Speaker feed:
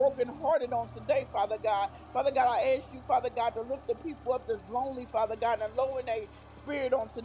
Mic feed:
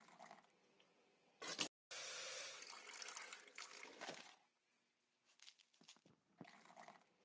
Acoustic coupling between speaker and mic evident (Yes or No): No